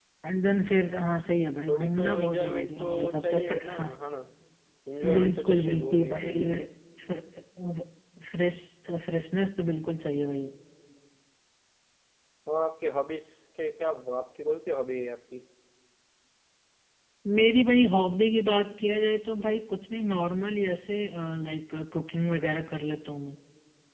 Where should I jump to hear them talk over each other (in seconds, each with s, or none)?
1.7 s